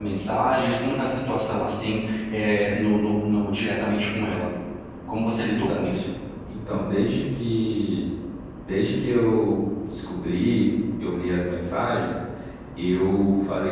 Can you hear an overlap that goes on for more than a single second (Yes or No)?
No